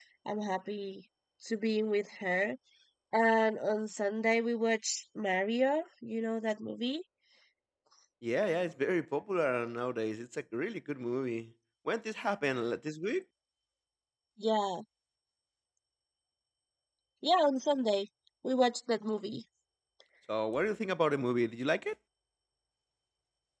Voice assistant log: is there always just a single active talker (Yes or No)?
Yes